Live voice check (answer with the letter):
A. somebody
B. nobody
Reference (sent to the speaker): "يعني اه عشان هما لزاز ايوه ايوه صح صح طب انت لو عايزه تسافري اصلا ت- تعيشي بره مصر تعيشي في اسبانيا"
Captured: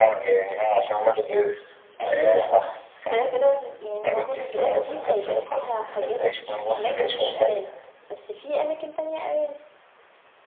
A